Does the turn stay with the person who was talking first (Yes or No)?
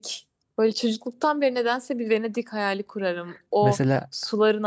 Yes